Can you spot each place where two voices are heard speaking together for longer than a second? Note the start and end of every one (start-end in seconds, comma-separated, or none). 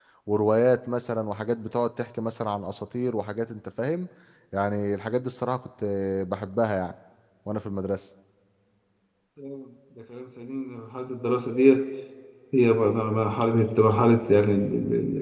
none